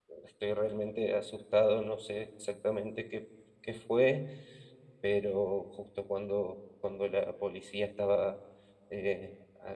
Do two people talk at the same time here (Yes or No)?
No